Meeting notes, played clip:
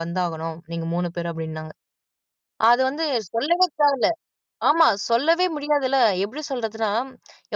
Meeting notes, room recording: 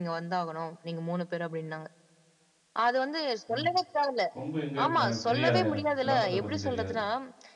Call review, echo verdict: present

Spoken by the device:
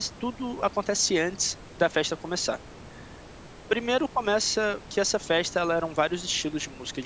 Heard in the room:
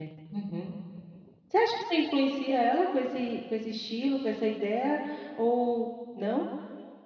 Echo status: none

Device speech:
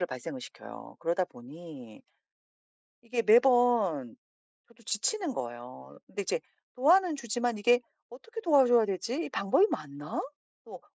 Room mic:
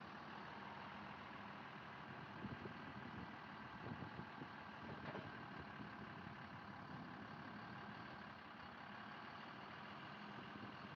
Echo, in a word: none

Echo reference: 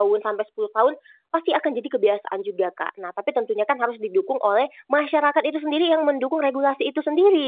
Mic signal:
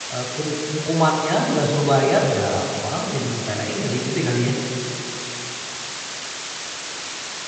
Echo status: none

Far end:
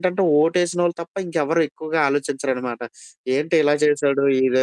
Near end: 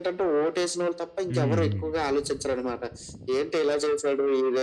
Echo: present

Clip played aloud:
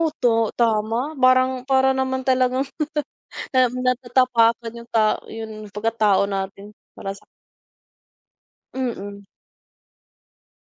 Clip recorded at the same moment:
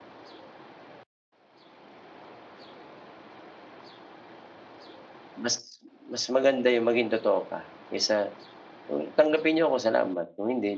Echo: none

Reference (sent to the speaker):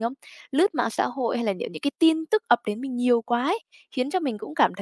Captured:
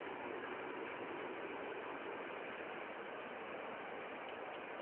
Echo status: none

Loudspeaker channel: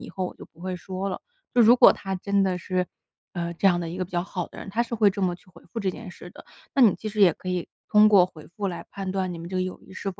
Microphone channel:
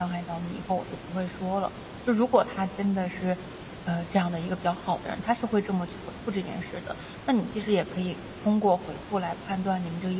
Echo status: present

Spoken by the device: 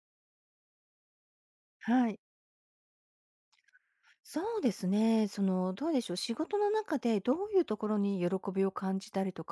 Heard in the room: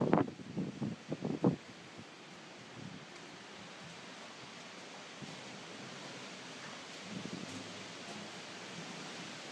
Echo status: none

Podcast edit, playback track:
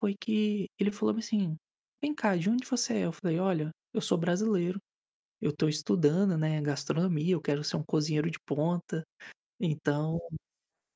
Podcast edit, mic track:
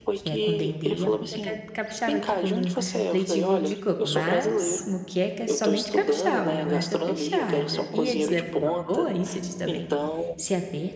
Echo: present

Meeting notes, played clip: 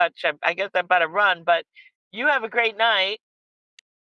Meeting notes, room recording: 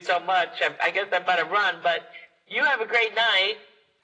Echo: present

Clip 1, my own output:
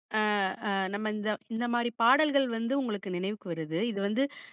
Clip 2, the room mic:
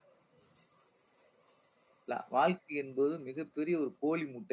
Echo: none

